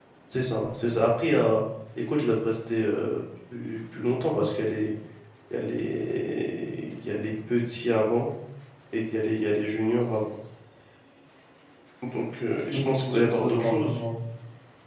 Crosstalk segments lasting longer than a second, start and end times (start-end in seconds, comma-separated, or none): 12.7-14.0